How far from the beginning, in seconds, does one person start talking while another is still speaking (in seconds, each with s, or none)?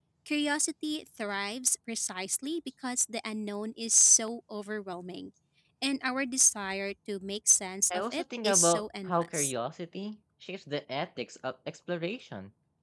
7.9 s